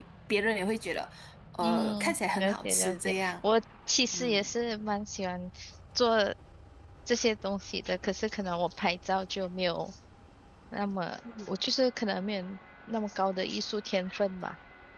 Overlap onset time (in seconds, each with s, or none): 1.6 s